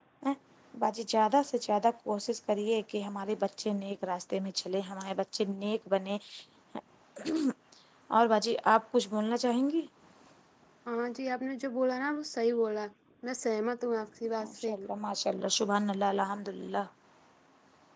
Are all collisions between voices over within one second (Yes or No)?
Yes